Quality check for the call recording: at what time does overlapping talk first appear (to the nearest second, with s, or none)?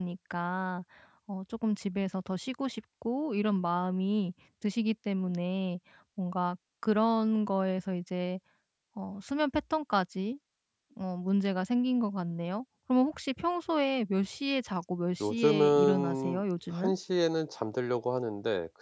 15 s